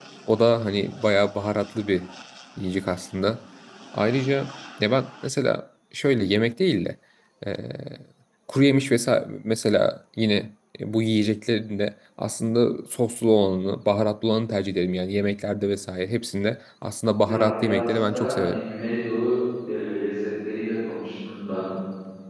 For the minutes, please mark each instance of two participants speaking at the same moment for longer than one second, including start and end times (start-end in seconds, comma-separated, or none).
17.2-18.6